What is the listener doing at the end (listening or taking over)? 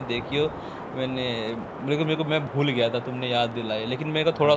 taking over